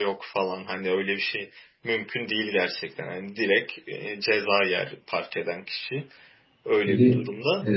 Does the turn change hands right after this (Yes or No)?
Yes